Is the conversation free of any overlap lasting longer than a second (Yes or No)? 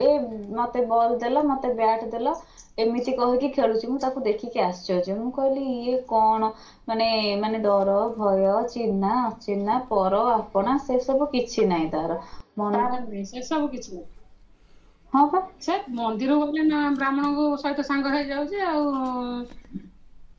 Yes